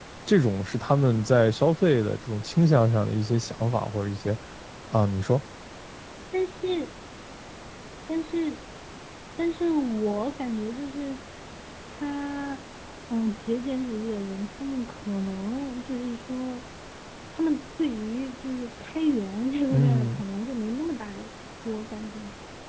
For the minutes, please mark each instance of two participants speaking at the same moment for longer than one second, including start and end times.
none

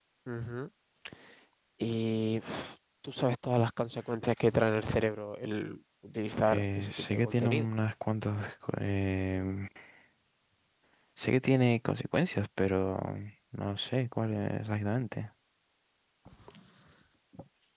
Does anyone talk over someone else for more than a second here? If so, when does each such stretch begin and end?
6.4-7.7

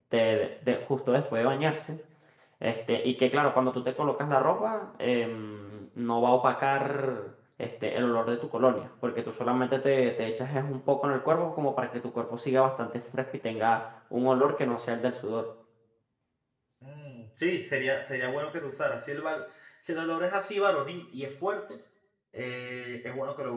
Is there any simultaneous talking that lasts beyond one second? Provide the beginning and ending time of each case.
none

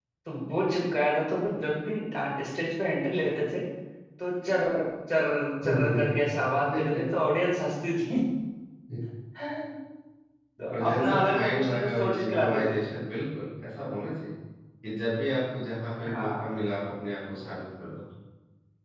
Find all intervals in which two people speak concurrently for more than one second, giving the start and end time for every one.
10.7-12.7

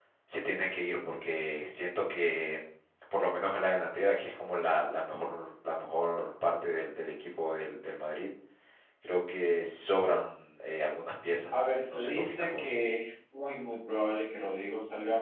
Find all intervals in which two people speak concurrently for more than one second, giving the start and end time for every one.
11.5-12.8

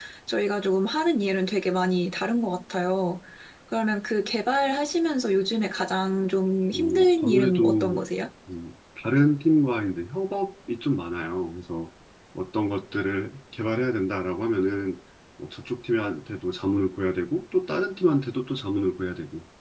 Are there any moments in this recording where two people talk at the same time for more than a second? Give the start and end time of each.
6.7-8.0

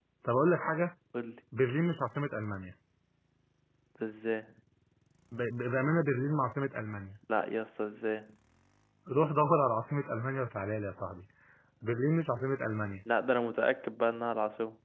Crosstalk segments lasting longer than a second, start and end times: none

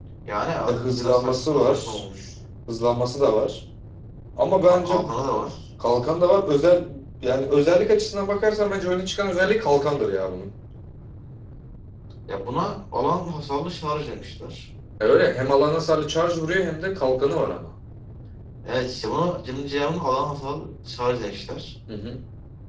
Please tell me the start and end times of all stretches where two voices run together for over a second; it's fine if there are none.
0.7-2.0

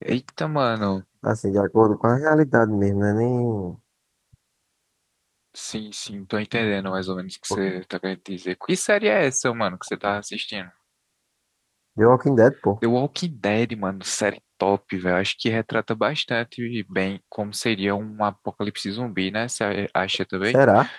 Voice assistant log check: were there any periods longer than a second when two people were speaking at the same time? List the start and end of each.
none

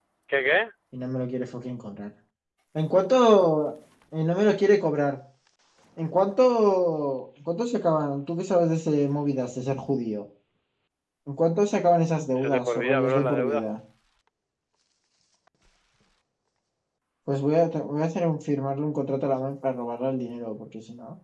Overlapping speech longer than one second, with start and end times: 12.4-13.6

